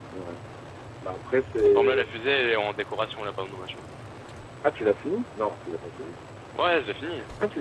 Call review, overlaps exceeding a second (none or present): none